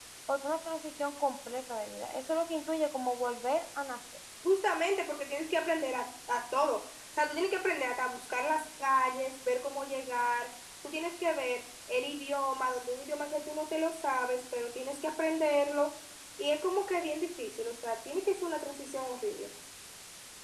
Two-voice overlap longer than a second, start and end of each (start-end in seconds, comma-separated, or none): none